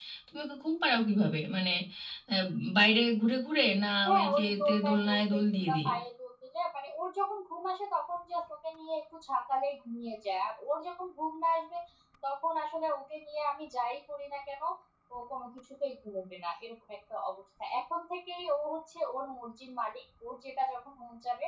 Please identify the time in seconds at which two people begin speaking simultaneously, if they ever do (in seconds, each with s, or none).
4.0 s